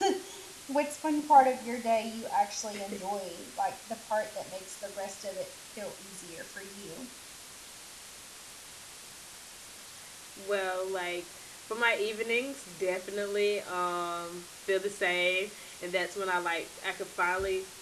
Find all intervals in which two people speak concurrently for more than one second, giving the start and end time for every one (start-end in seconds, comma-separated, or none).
none